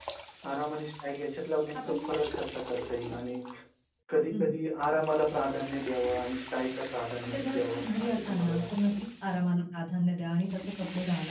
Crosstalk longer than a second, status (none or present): present